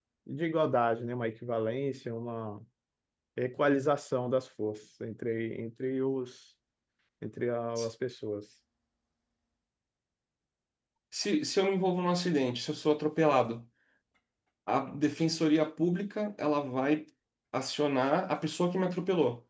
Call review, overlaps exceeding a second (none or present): none